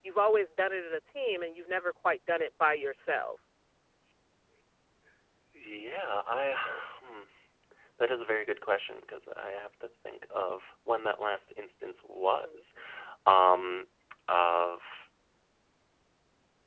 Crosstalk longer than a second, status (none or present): none